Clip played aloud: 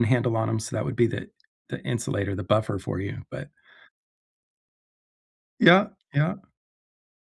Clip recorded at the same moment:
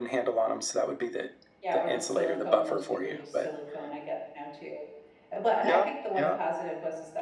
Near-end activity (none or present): present